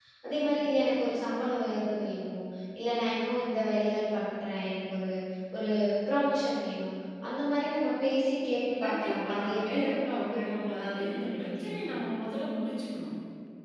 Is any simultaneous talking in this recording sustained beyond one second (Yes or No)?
Yes